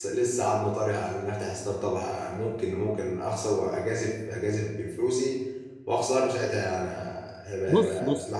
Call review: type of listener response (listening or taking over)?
taking over